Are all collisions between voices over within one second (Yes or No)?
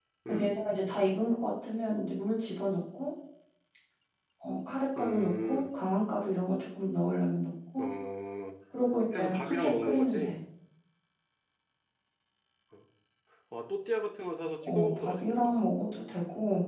No